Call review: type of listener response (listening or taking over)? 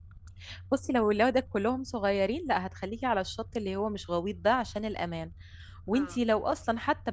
listening